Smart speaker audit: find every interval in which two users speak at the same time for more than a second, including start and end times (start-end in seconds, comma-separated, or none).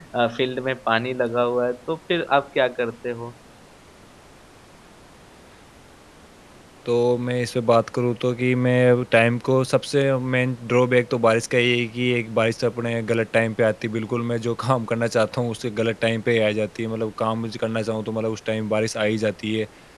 none